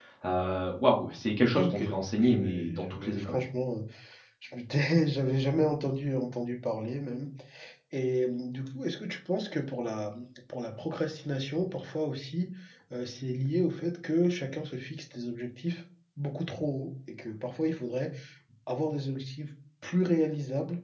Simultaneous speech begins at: 2 s

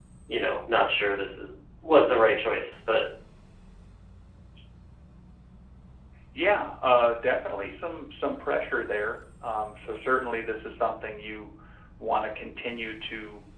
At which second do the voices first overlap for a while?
none

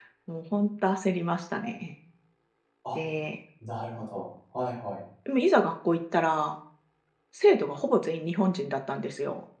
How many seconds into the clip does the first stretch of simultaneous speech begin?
none

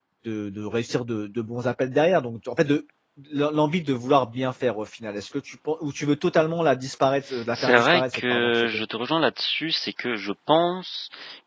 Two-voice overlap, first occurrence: 8 s

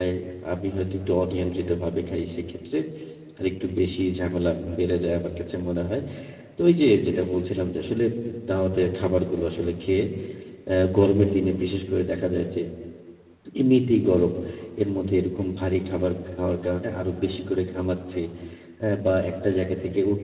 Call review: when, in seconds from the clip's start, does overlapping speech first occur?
none

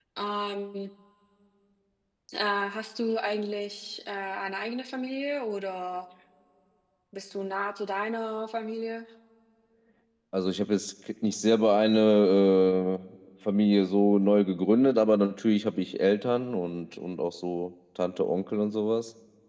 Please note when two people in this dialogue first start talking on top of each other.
none

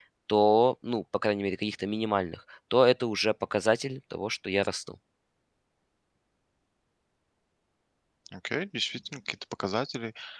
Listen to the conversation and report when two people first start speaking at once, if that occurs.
none

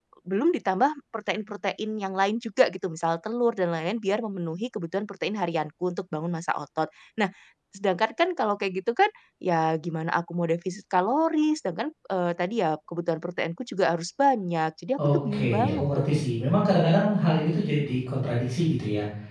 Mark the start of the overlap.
15 s

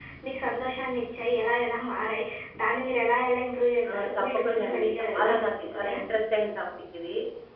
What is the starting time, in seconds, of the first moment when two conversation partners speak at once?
4 s

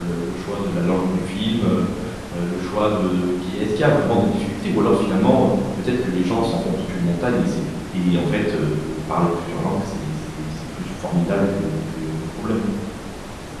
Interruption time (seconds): none

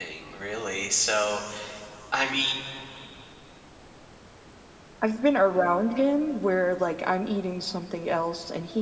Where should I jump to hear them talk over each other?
none

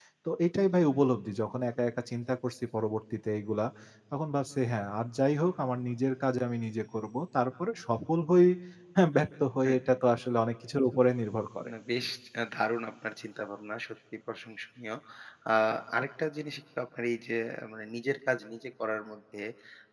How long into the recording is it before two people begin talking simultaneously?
none

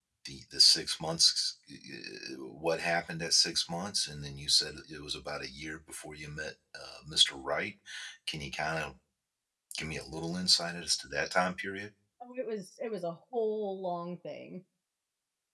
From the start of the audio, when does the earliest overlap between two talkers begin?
none

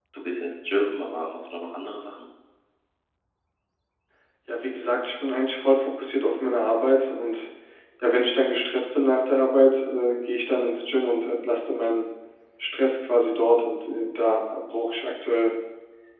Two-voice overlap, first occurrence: none

